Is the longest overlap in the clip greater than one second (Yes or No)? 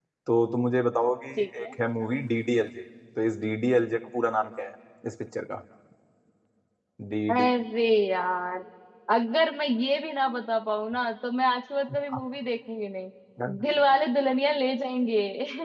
No